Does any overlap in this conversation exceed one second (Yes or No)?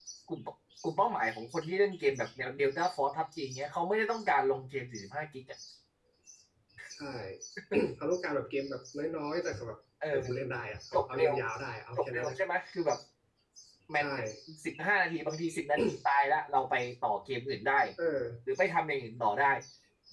No